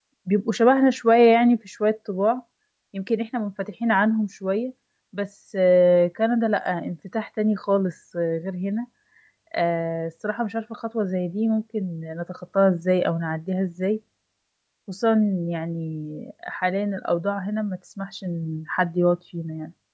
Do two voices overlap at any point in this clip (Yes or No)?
No